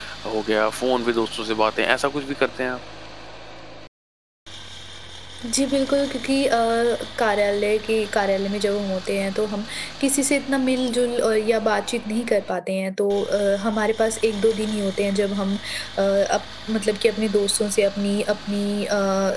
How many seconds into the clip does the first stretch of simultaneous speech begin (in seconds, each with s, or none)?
none